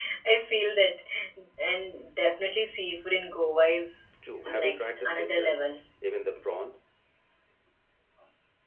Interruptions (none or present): present